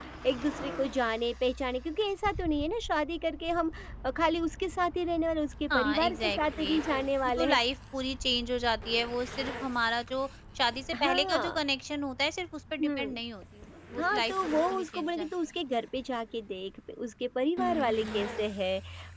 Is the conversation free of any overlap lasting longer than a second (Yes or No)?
No